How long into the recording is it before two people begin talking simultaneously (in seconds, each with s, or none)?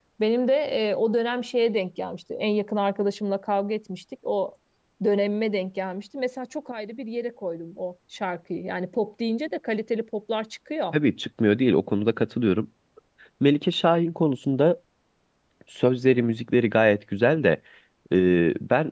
none